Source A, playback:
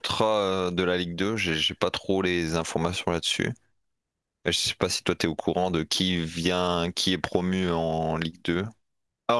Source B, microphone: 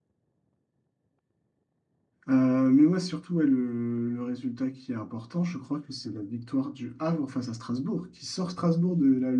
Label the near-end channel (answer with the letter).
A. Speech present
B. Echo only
A